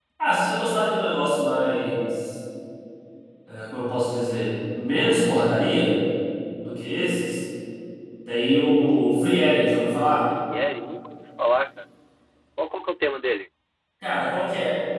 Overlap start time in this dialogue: none

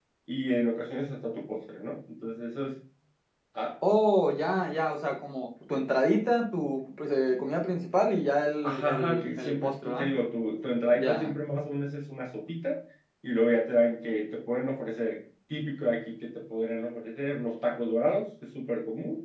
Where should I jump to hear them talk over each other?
8.6 s

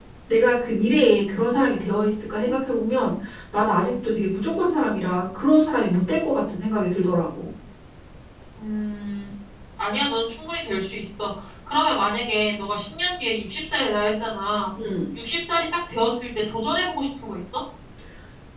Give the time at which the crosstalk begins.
none

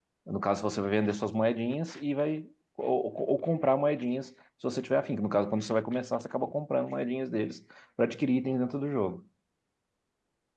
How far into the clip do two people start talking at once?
none

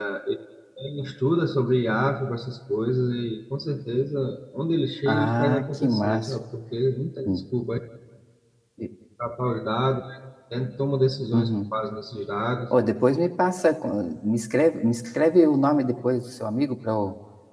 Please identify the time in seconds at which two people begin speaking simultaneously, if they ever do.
5.1 s

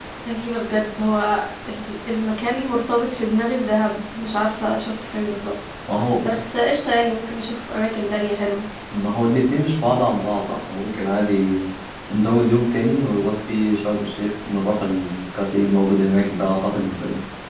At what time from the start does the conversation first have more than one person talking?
none

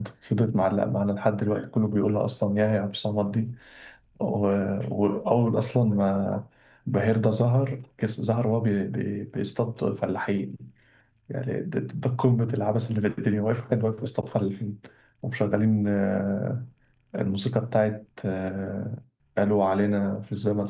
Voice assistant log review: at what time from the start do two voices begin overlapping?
none

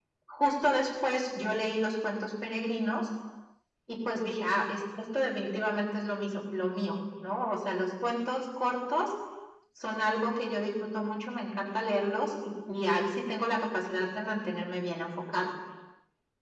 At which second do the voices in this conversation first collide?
none

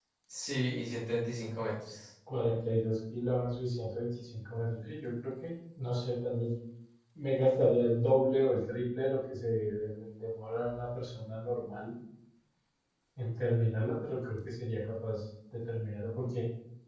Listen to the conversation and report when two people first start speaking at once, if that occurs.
none

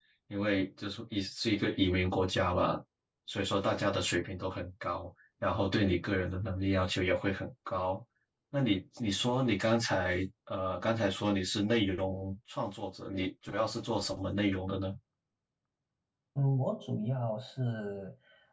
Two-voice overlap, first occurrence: none

